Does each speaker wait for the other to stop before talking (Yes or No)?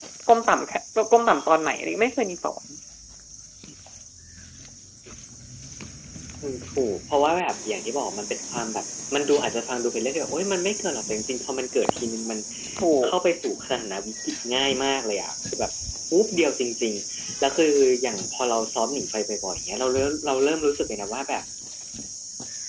Yes